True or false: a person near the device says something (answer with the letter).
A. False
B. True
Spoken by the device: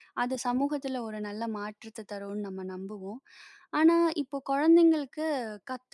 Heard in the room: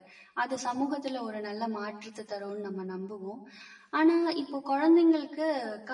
A